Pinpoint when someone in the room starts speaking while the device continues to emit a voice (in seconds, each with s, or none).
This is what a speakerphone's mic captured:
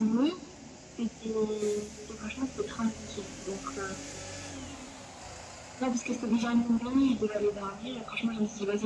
none